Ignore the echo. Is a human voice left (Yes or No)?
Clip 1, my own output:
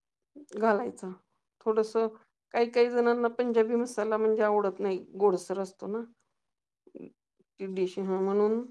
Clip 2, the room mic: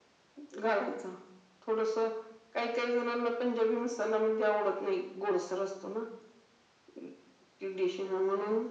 No